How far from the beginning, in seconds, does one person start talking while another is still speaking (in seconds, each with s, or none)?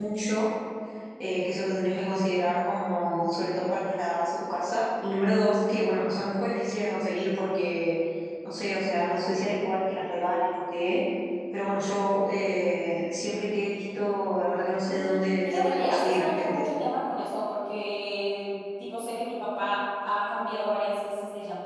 14.9 s